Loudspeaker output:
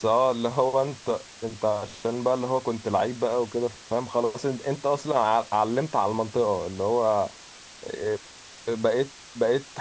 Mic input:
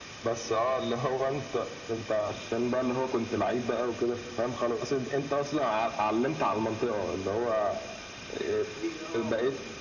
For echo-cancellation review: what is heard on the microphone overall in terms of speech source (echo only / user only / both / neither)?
both